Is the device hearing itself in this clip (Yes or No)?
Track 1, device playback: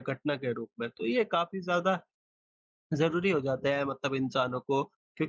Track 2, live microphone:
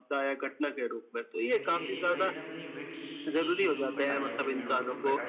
Yes